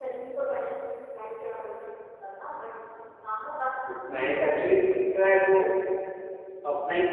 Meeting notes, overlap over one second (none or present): none